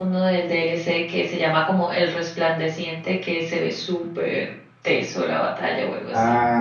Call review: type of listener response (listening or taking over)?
taking over